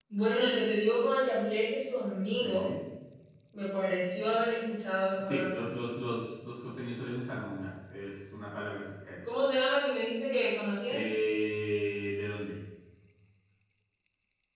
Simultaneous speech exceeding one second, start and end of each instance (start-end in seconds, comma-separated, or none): none